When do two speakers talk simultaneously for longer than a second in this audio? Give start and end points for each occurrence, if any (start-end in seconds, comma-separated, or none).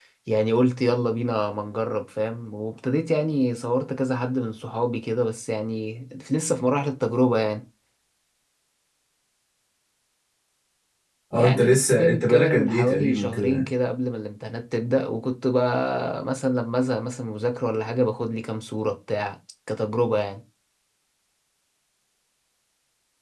11.3-13.7